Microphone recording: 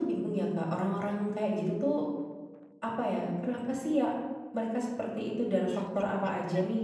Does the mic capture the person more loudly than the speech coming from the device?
No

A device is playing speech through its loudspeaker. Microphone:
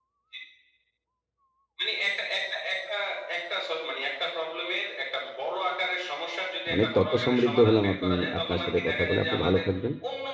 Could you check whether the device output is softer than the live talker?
Yes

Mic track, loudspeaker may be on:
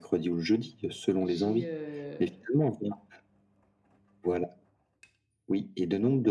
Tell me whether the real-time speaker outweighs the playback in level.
No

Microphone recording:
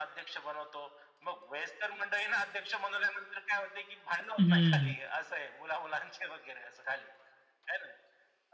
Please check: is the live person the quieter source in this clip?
No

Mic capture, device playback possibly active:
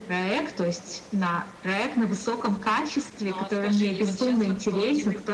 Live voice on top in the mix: No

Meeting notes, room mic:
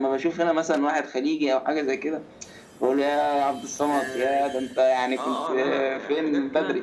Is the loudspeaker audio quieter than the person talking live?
No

